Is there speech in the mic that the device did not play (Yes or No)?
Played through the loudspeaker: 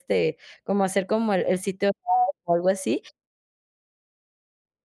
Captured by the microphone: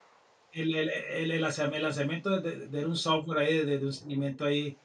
Yes